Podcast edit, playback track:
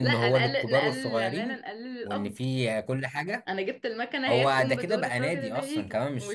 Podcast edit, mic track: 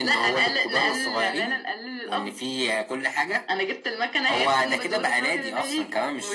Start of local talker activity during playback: none

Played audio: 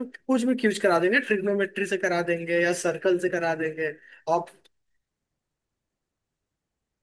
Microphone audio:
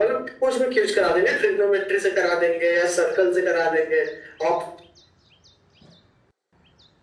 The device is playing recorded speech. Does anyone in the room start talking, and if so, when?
none

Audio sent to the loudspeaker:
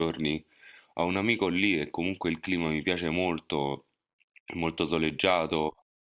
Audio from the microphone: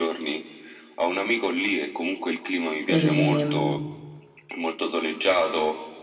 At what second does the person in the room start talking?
2.9 s

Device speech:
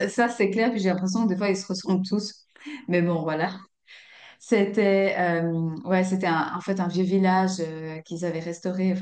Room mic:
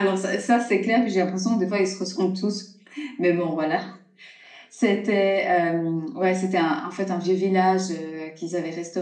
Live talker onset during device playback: none

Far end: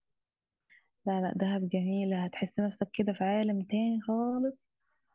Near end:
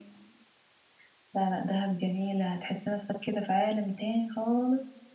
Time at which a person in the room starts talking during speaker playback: none

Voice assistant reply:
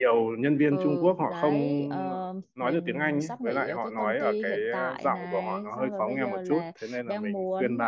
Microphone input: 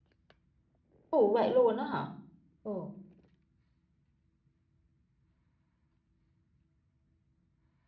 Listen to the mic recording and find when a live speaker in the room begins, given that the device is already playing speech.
1.1 s

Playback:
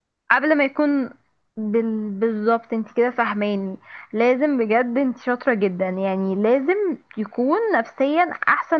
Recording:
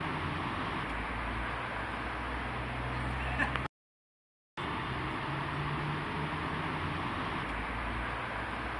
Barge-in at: none

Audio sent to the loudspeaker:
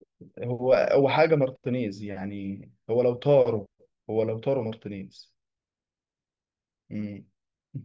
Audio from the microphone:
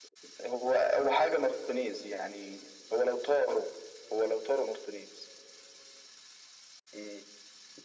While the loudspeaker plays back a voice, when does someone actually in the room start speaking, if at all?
none

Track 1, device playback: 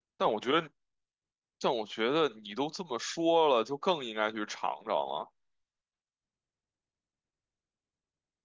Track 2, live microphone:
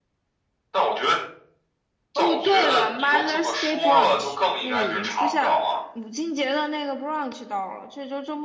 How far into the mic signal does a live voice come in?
2.1 s

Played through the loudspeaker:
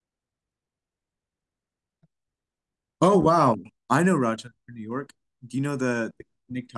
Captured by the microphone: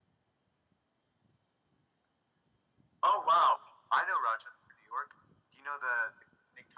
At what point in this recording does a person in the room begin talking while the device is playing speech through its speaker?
none

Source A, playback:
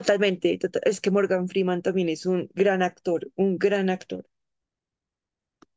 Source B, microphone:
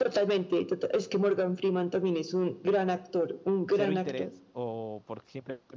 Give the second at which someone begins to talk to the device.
3.7 s

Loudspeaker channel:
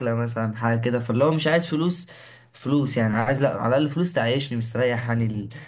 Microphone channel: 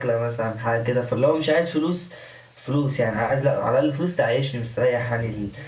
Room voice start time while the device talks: none

